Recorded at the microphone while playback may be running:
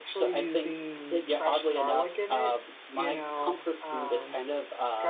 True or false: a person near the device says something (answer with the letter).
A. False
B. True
B